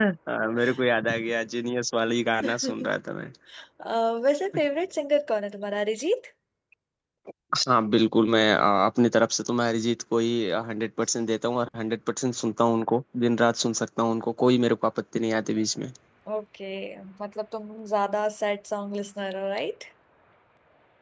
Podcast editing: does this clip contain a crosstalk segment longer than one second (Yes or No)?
No